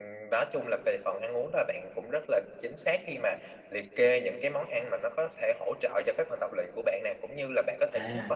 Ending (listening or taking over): listening